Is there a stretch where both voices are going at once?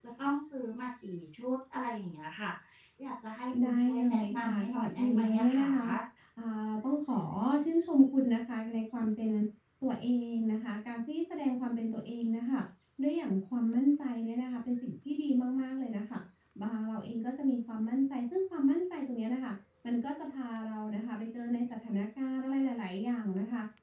Yes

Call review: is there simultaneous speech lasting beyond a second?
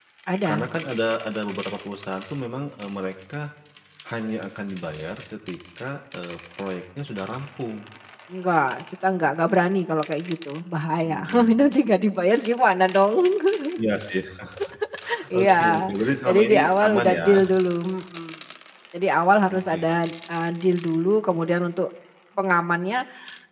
Yes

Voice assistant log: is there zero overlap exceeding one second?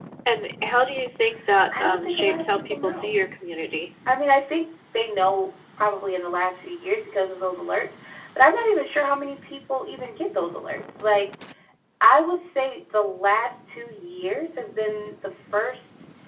No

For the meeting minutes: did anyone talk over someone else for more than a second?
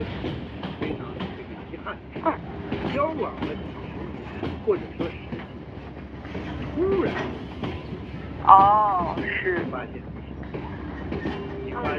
No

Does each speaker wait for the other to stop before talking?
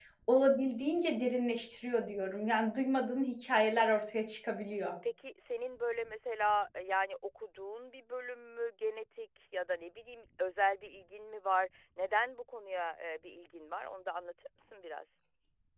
Yes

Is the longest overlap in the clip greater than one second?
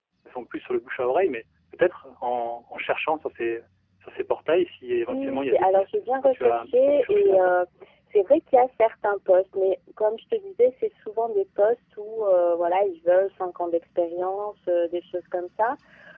Yes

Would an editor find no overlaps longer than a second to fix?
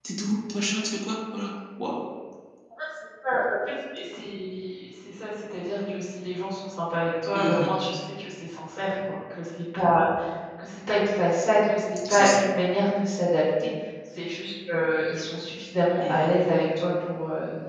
Yes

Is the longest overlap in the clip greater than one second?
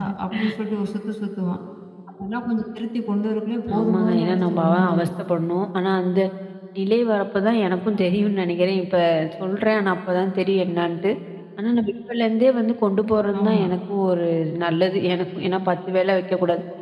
Yes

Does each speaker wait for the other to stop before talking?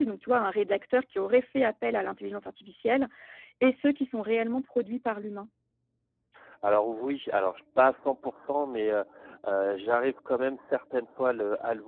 Yes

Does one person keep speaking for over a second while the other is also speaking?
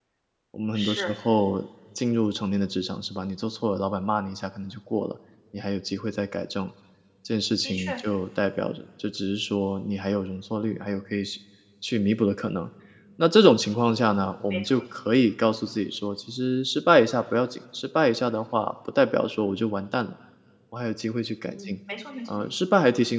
No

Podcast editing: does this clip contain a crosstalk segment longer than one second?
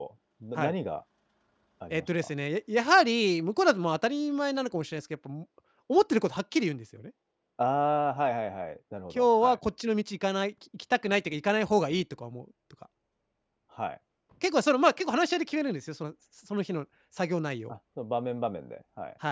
No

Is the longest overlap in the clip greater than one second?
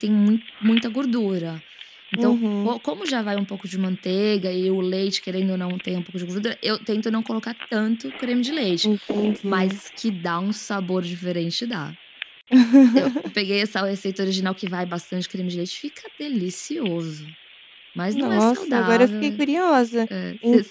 Yes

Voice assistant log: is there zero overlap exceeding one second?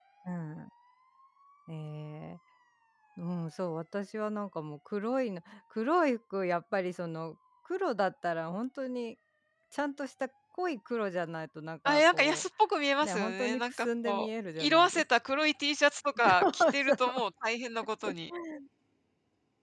No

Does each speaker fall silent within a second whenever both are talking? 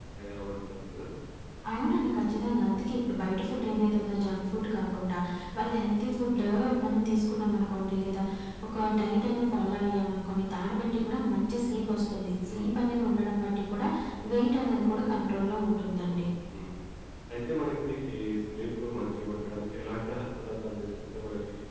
Yes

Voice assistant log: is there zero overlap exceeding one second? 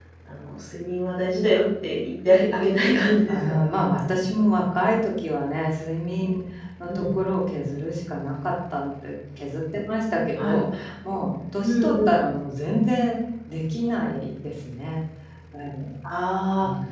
Yes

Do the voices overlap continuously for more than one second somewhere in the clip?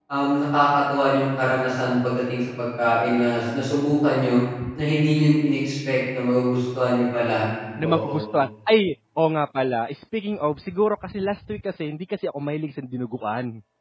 No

